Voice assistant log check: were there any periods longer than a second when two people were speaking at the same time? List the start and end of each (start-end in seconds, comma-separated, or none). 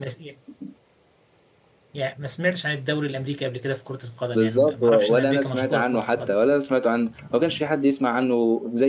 4.3-6.3